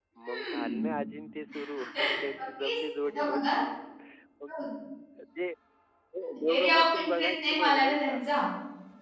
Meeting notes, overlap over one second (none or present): present